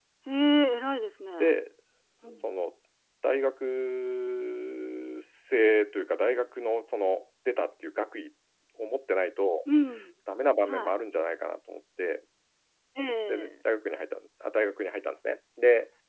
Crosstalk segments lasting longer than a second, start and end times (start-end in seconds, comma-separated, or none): none